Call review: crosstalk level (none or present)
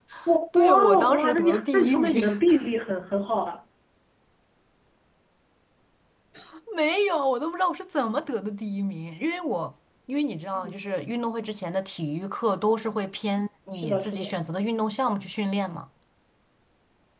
present